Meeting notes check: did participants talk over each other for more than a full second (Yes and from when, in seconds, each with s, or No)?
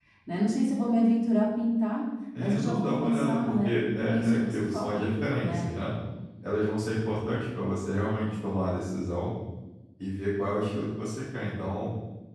Yes, from 2.3 s